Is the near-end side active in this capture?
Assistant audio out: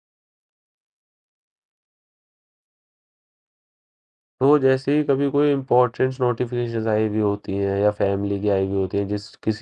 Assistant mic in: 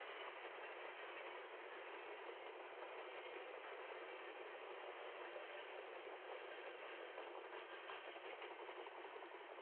No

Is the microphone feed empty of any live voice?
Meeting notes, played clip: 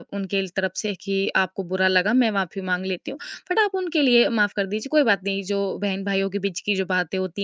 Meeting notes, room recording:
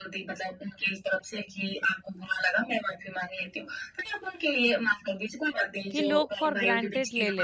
No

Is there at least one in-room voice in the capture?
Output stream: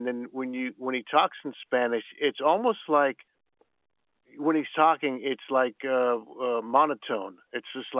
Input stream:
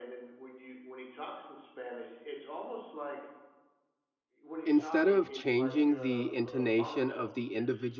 Yes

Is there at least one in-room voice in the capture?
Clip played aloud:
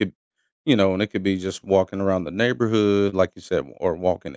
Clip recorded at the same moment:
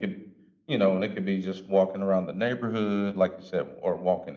No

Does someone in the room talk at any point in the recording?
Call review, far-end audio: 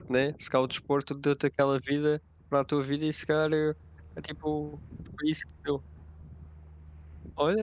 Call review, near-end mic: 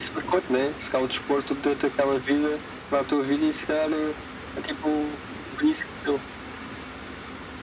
No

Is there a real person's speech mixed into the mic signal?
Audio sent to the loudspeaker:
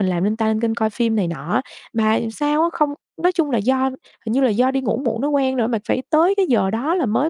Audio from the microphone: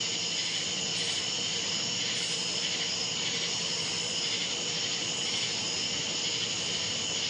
No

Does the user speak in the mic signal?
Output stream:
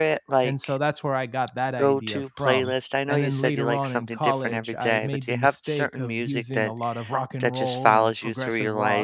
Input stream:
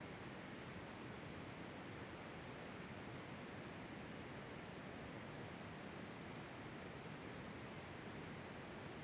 No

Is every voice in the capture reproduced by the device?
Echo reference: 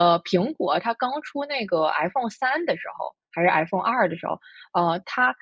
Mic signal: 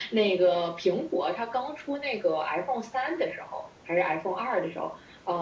Yes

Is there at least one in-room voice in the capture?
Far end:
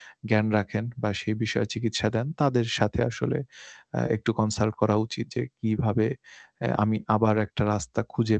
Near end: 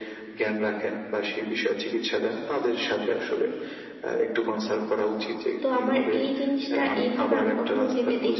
Yes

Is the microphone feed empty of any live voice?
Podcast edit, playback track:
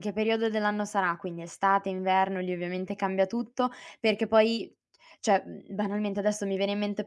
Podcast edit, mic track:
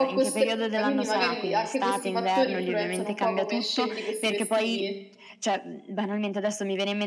No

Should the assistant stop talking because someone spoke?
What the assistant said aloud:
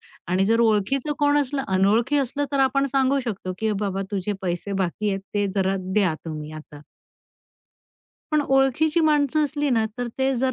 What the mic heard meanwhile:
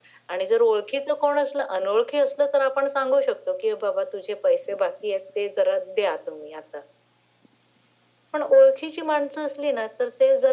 No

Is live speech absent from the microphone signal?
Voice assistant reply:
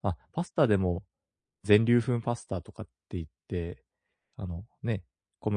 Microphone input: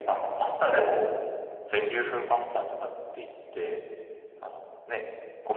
Yes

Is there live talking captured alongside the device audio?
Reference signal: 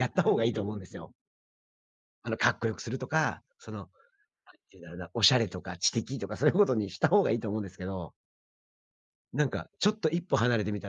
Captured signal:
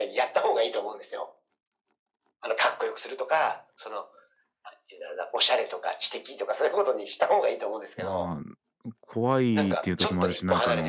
Yes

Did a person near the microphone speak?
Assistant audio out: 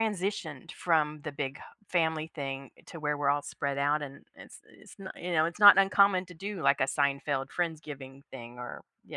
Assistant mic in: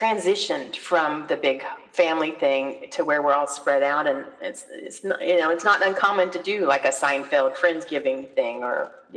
No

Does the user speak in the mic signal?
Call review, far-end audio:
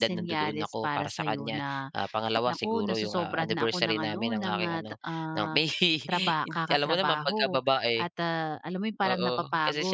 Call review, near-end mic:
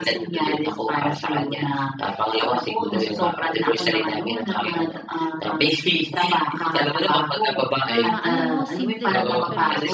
Yes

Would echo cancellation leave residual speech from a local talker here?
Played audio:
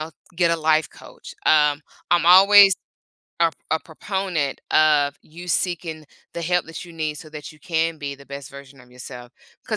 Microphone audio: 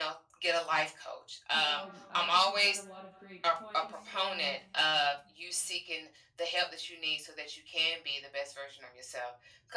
Yes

